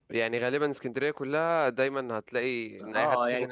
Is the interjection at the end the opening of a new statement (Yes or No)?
Yes